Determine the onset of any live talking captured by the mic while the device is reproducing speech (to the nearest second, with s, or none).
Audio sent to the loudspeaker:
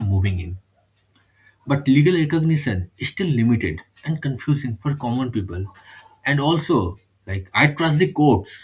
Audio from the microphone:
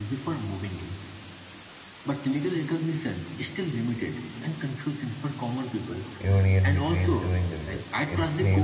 6 s